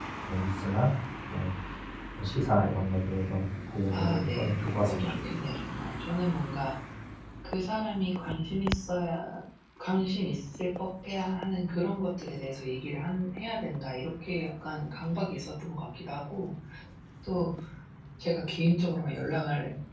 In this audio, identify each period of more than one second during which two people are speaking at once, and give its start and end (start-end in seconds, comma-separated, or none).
3.9-5.1